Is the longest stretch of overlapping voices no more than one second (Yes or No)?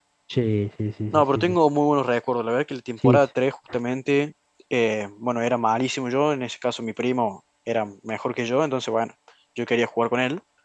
Yes